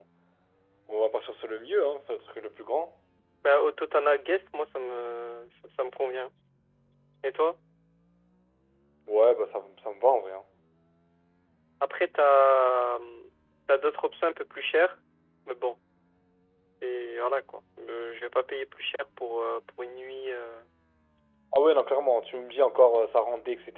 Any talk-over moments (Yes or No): No